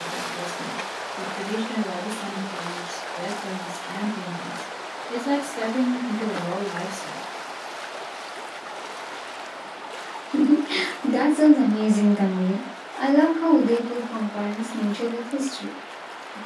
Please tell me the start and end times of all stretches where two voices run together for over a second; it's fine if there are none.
none

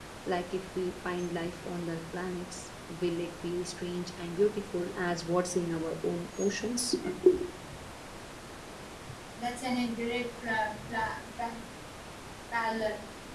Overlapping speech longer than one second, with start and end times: none

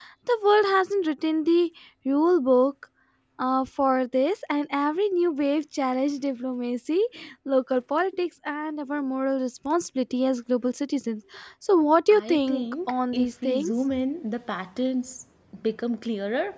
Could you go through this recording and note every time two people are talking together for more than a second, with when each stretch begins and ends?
12.1-13.7

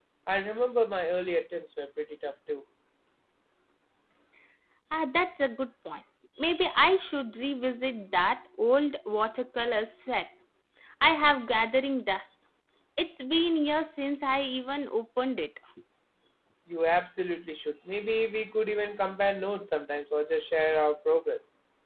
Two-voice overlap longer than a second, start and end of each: none

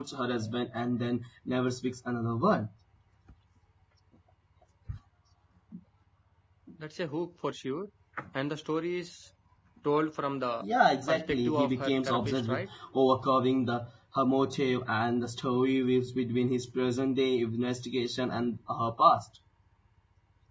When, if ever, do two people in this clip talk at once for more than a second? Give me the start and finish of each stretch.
11.1-12.7

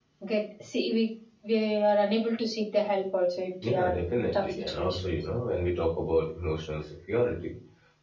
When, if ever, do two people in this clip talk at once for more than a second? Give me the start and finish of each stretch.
3.7-5.0

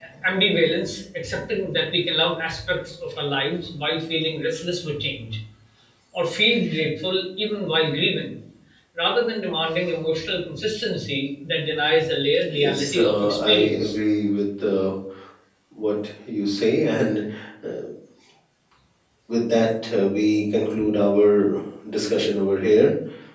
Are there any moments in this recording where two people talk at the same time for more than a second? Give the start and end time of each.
12.6-13.9

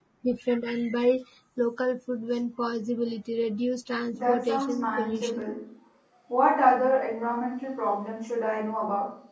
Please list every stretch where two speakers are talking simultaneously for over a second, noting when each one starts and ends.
4.1-5.4

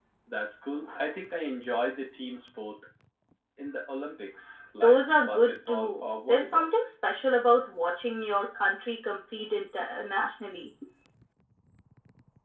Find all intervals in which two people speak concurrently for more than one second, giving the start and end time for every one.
4.8-6.7

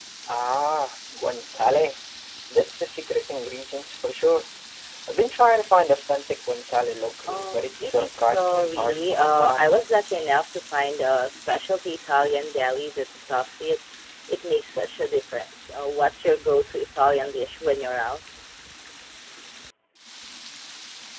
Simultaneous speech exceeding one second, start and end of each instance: 7.3-9.7

